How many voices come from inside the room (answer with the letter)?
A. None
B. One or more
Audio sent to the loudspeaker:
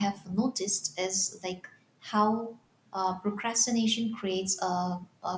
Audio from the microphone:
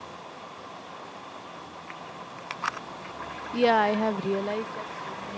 B